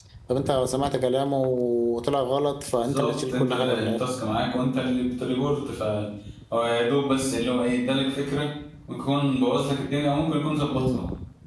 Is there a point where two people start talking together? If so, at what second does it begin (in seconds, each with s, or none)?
2.7 s